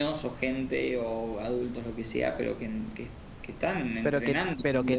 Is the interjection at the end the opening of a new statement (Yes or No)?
Yes